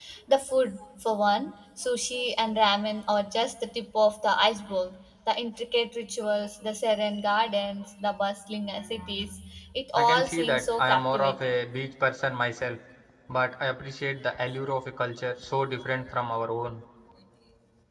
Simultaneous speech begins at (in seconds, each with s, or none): 10.0 s